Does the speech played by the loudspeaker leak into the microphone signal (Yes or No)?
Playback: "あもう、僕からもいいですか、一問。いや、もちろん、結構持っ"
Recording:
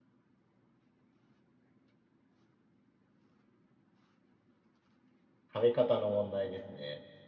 No